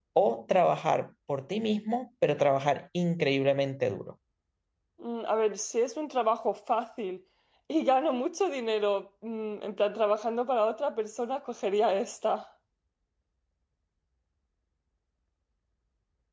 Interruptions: none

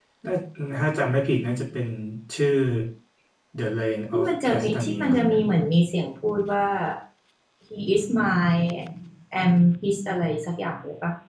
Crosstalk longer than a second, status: present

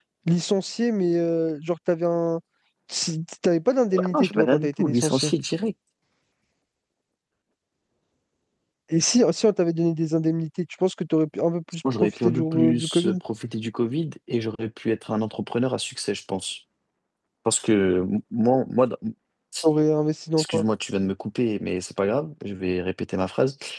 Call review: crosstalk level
present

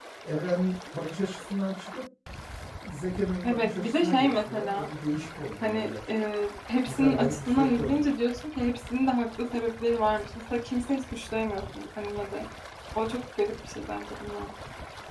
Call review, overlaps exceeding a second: present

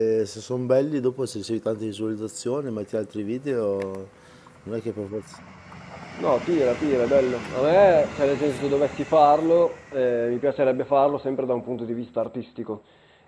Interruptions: none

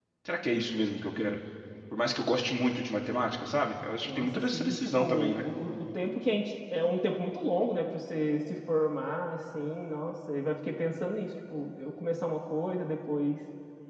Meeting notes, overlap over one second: present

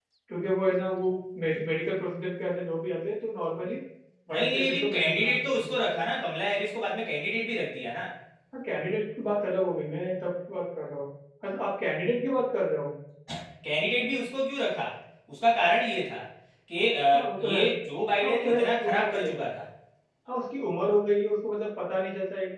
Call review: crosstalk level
present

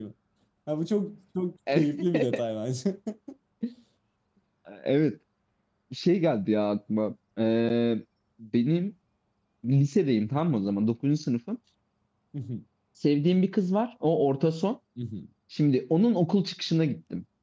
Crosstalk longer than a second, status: none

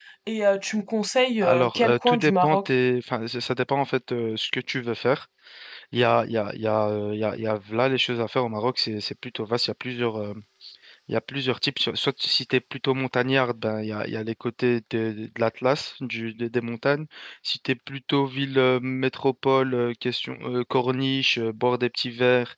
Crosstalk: present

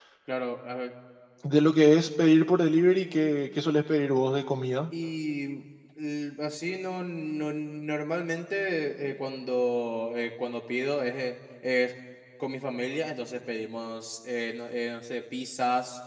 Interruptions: none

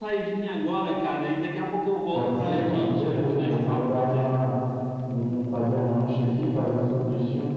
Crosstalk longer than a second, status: present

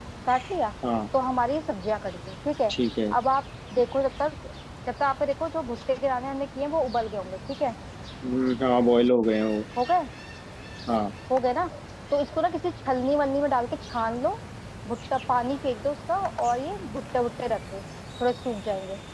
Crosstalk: none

